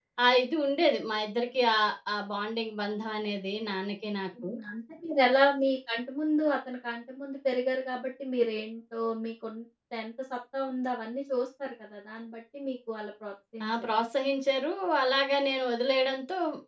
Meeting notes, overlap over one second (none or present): none